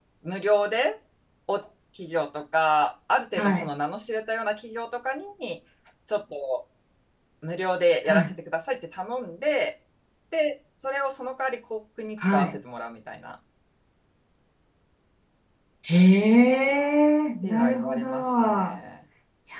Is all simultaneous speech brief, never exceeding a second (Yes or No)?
No